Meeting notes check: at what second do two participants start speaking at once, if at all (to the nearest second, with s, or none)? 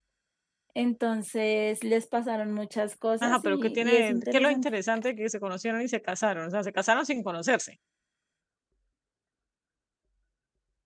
3 s